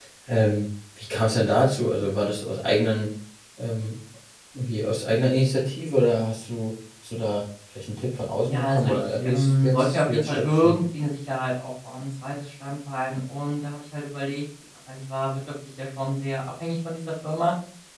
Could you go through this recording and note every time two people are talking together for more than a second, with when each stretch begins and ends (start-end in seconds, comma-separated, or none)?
8.4-10.8